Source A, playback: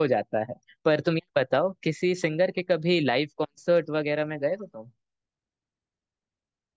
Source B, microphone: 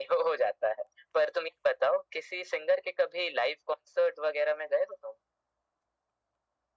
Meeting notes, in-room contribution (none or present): none